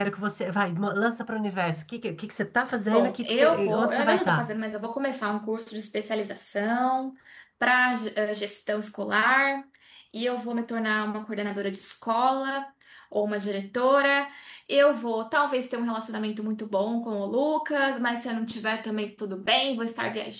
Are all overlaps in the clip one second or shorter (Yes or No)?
No